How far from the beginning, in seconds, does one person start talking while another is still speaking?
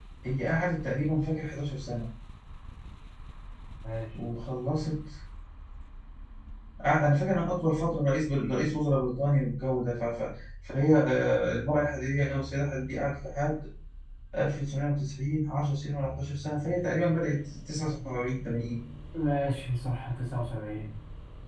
none

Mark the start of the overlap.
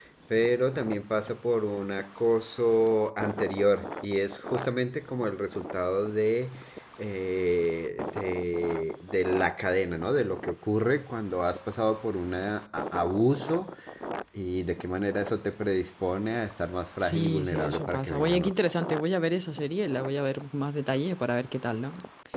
17.0 s

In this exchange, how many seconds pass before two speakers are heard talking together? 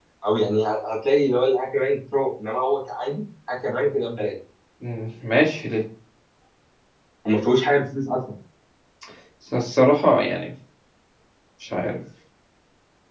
none

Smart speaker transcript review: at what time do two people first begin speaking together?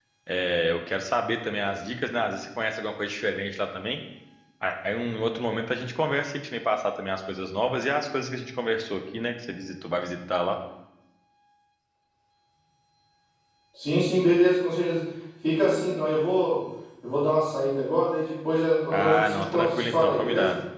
18.9 s

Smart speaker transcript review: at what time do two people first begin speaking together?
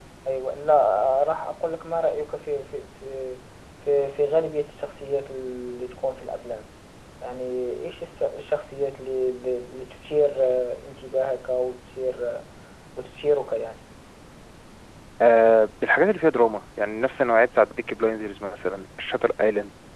none

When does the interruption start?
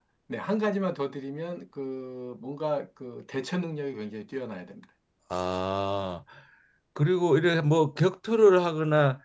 none

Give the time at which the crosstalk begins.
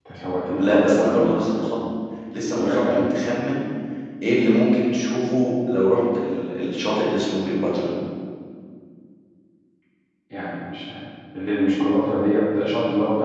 0.5 s

